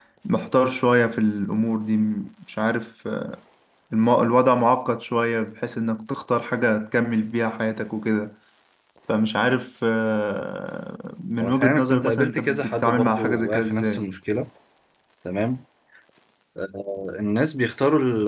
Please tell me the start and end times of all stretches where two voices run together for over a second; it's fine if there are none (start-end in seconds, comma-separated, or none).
11.4-14.0